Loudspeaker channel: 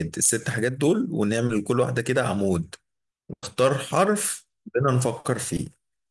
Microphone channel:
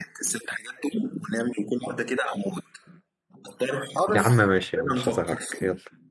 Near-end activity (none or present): present